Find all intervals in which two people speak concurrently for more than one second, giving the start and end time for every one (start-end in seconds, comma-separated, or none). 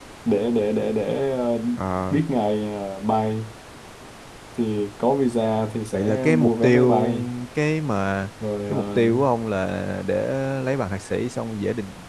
5.9-7.1